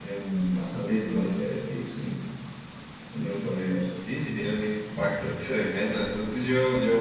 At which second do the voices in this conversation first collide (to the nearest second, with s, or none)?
none